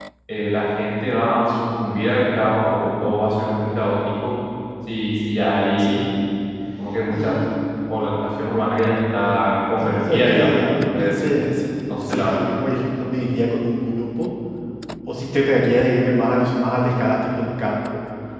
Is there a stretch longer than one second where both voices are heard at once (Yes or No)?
Yes